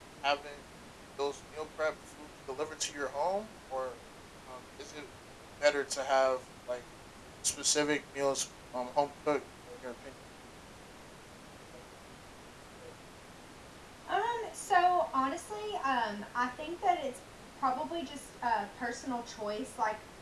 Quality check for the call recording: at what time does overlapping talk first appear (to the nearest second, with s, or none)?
none